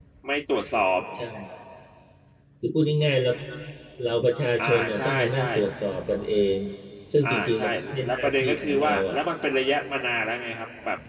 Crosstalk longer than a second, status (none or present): present